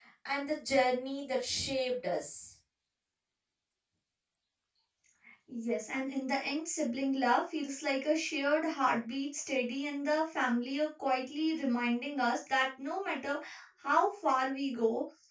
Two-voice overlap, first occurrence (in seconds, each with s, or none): none